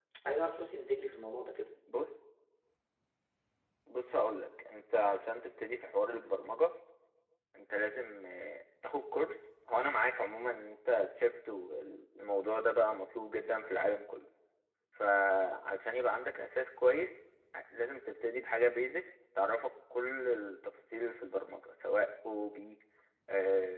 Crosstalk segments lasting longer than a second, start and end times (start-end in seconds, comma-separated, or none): none